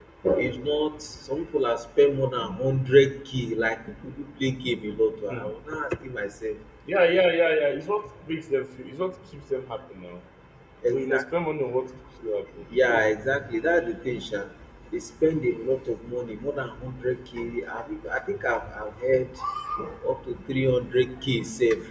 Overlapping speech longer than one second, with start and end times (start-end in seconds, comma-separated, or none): none